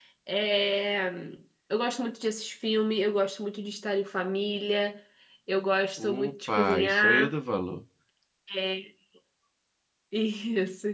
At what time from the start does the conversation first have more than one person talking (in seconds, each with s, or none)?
6.0 s